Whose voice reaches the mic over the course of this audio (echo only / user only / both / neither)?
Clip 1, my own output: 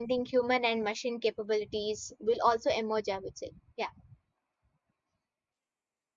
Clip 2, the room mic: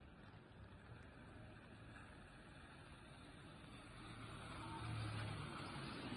neither